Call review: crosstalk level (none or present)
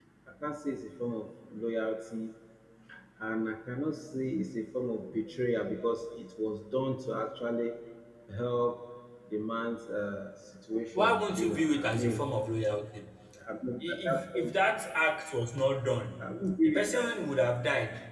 present